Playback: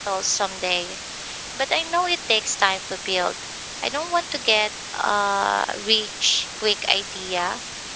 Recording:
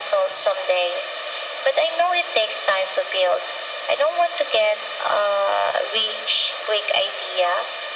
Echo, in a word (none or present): present